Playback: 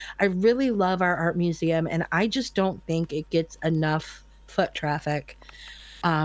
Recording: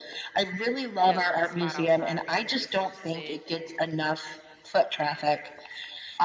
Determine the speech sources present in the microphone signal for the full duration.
both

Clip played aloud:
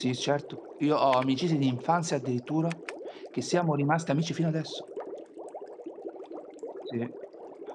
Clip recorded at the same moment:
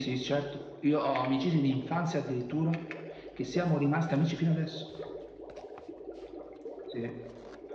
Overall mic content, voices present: echo only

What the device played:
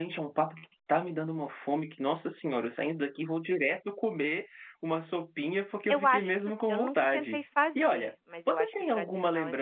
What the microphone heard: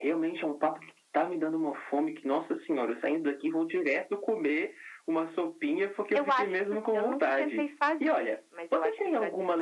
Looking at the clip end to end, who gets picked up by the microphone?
echo only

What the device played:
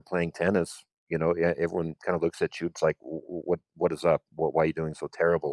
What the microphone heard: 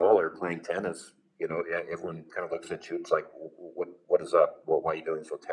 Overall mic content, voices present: echo only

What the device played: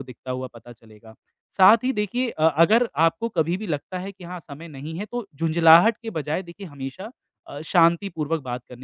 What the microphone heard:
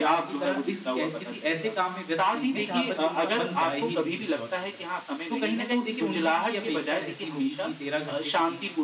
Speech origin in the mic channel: both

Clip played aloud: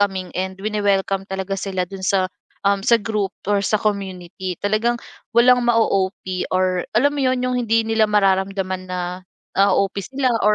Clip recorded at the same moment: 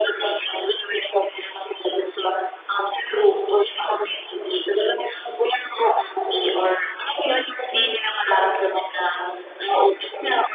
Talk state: echo only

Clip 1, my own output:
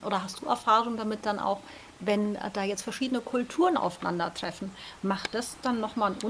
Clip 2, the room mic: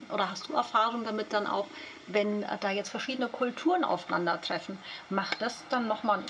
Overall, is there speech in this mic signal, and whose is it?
echo only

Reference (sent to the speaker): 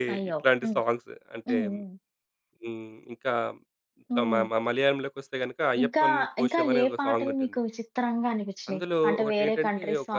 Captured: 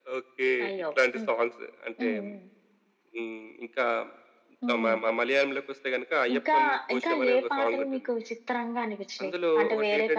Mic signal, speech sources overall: echo only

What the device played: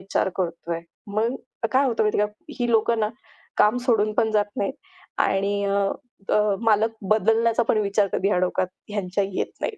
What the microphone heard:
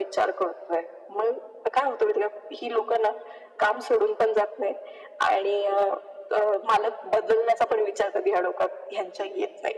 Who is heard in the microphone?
echo only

